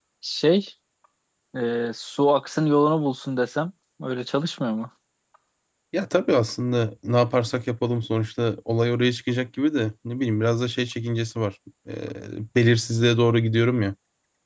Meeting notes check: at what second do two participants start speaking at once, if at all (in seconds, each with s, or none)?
none